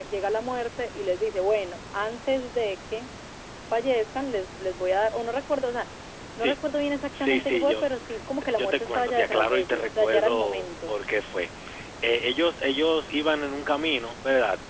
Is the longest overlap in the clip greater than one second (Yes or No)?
Yes